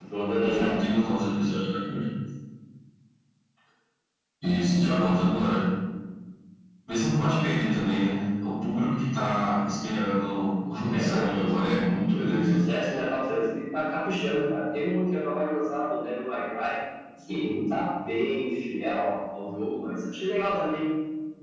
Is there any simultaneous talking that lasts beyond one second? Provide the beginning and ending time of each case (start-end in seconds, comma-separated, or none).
none